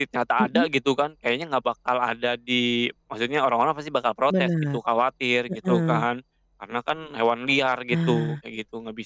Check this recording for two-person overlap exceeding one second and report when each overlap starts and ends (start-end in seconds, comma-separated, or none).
none